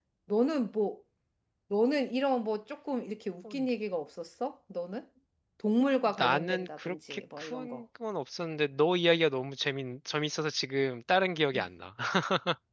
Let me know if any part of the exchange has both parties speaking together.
Yes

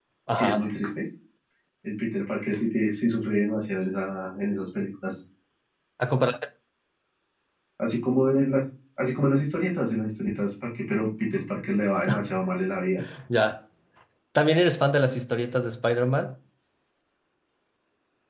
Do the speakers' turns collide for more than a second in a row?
No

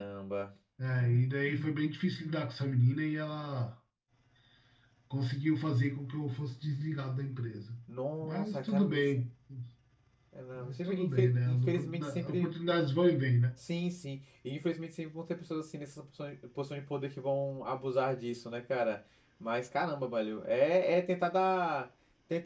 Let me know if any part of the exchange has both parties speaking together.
Yes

